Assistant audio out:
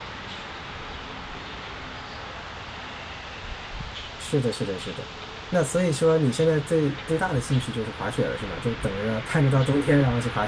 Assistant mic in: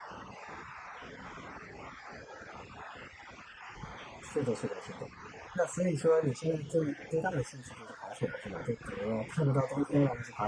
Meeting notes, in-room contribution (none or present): none